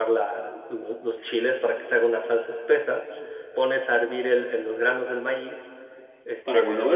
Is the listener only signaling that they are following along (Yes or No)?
No